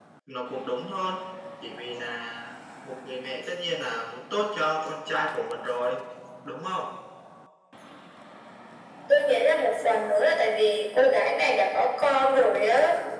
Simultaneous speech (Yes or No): No